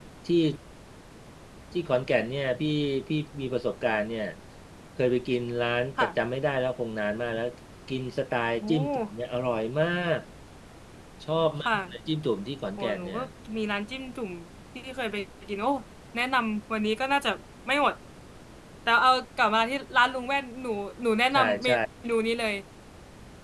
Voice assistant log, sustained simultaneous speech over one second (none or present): none